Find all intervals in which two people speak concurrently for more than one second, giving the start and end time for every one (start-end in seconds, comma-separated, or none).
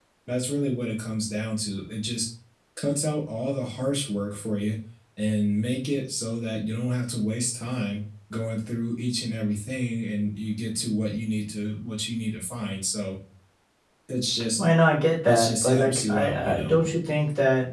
15.2-16.7